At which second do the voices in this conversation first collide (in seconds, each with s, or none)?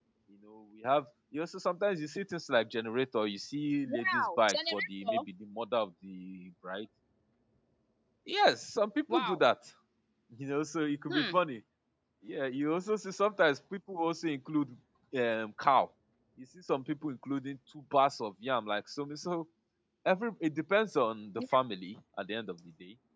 3.9 s